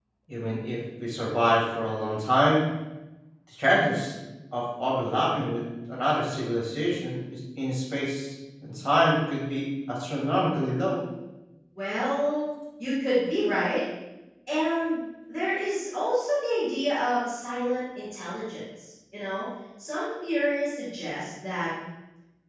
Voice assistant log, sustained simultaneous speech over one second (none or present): none